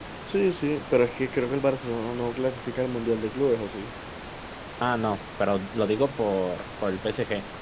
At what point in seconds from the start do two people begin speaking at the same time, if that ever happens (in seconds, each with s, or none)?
none